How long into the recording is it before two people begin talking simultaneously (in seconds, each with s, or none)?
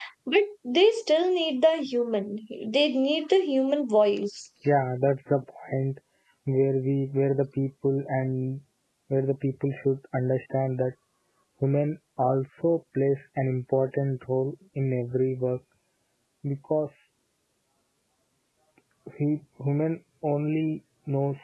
none